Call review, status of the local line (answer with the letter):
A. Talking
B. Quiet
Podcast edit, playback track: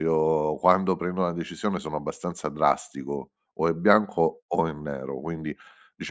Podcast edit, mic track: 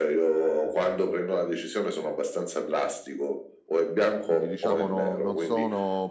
A